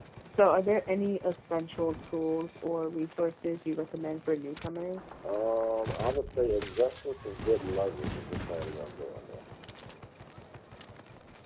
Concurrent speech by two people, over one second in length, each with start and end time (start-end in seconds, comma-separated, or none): none